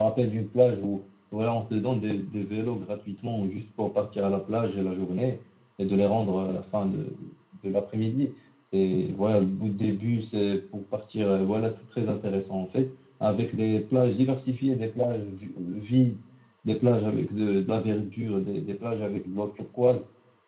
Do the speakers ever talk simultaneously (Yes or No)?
No